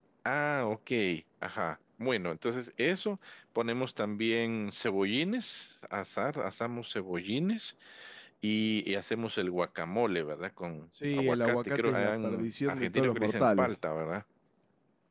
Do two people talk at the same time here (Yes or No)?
Yes